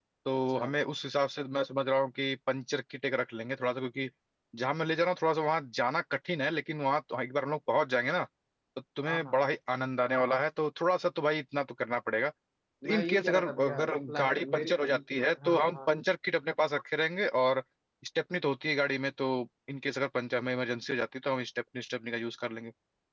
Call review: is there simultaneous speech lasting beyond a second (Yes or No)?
Yes